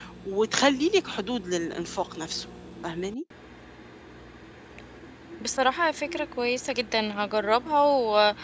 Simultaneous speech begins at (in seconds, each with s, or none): none